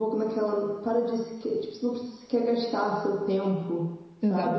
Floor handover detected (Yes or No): Yes